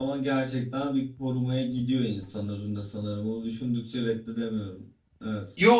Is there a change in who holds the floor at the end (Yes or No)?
Yes